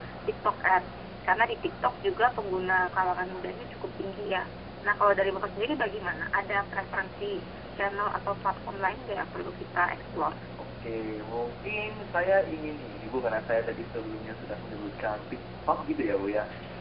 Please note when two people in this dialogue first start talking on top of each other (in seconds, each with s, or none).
none